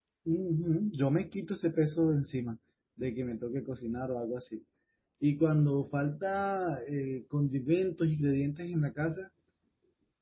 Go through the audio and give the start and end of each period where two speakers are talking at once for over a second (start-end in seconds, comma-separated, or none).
none